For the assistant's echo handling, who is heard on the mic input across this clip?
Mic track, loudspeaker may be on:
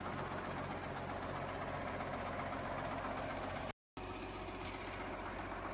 neither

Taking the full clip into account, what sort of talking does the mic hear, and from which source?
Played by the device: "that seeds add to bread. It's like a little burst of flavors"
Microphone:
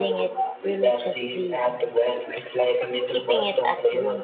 both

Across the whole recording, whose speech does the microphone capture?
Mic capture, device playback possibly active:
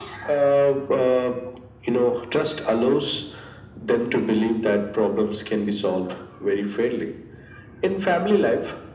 echo only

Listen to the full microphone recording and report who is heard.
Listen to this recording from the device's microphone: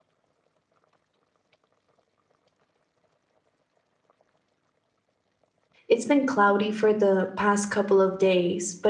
user only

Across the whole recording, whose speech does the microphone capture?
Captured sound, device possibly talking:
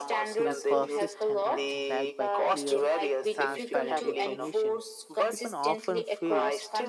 both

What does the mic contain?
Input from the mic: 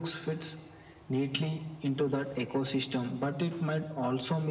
echo only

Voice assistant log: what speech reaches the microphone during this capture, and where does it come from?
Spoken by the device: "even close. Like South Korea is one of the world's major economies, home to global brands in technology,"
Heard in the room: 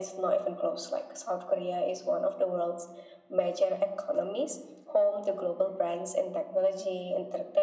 echo only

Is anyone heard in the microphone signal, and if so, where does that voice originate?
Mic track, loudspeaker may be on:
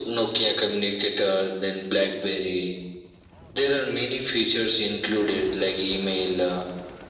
echo only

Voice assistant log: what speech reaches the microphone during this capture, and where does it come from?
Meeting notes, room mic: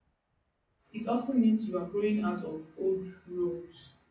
user only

